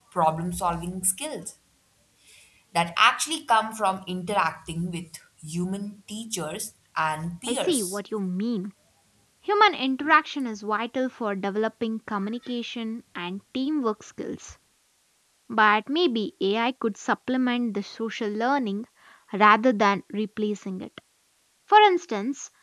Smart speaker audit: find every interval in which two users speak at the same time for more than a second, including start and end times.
none

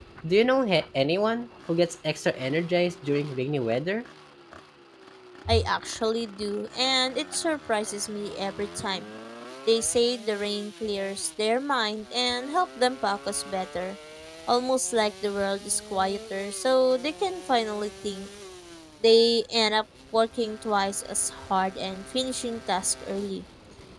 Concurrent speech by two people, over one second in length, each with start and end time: none

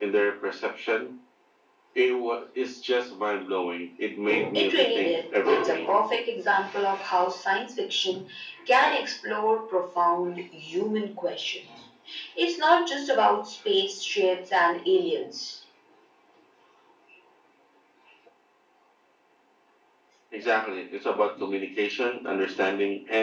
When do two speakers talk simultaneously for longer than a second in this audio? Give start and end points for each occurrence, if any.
4.5-5.9

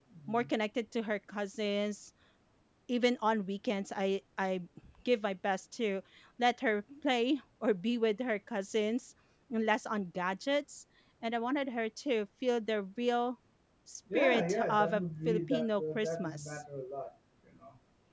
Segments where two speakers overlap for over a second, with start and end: 14.1-16.6

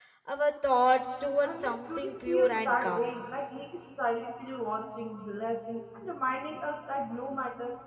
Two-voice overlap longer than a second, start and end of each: 1.4-3.2

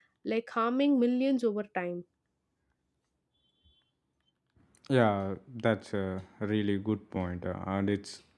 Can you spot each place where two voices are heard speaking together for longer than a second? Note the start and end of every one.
none

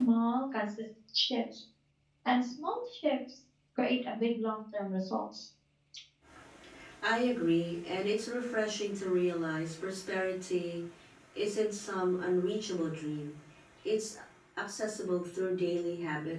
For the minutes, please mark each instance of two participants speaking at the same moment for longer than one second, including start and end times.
none

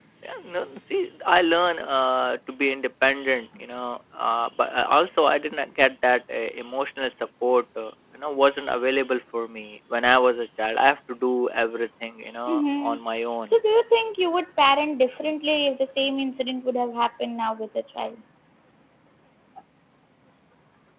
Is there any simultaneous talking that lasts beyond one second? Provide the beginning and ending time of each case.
none

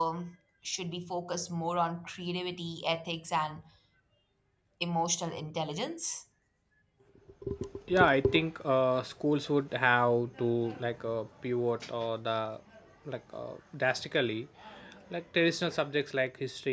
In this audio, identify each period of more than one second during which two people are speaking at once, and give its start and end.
none

